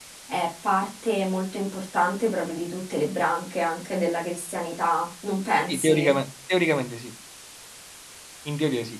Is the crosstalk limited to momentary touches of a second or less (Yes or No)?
Yes